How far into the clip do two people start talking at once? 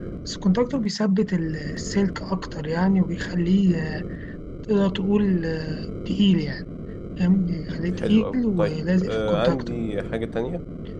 8.0 s

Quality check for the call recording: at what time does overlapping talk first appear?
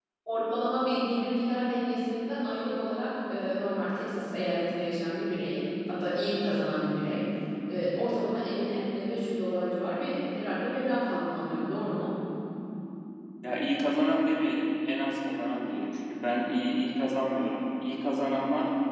none

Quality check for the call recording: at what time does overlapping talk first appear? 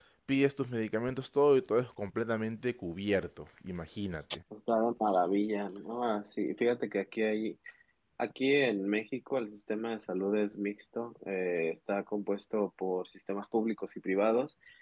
none

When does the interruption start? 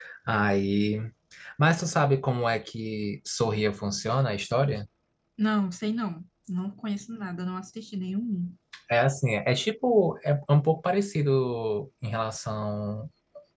none

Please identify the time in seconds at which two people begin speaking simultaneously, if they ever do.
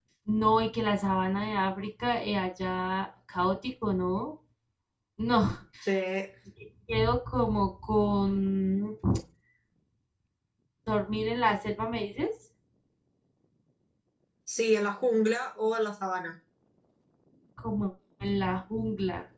none

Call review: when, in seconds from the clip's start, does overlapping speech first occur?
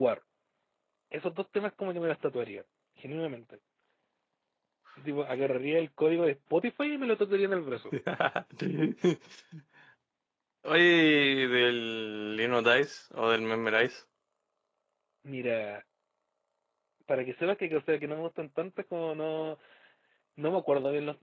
none

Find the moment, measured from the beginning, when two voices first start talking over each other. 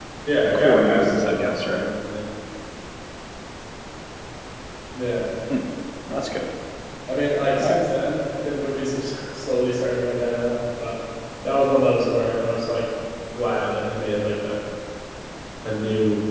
0.6 s

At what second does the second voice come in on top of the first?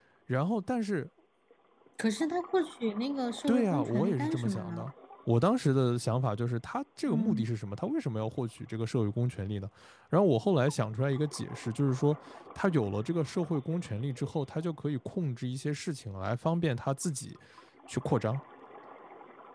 3.5 s

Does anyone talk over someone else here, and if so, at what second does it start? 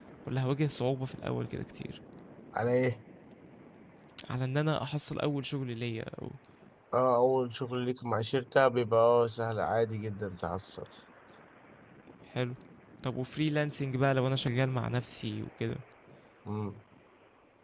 none

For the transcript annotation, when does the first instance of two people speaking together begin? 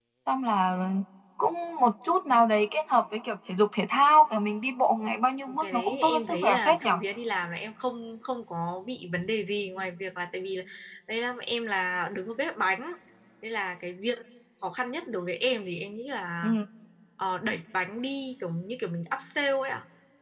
5.5 s

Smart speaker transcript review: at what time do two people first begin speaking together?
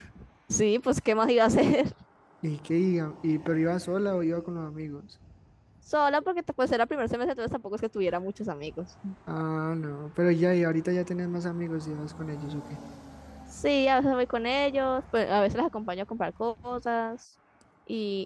none

